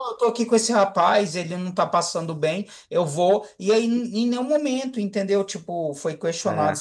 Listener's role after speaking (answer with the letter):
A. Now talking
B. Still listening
B